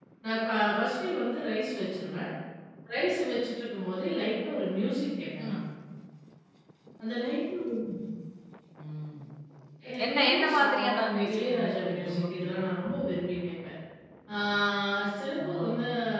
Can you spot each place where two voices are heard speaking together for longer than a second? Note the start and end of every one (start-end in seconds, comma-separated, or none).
10.1-12.7